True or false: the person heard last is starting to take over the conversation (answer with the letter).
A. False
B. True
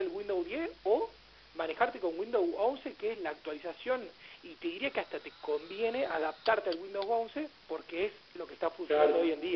B